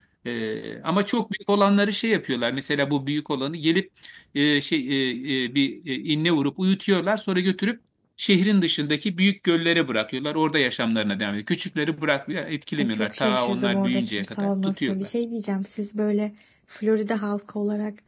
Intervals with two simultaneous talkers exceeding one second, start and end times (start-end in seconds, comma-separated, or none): 12.8-15.1